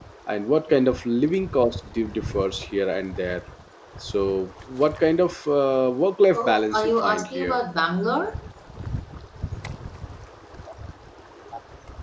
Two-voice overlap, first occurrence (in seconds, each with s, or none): 6.3 s